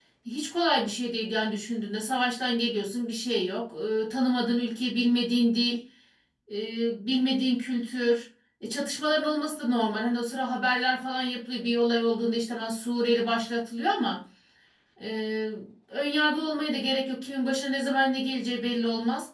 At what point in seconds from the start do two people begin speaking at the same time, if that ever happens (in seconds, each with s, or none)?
none